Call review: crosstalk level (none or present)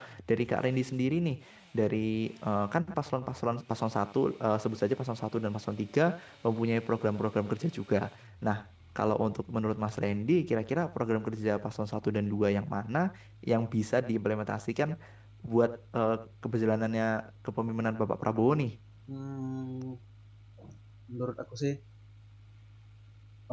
none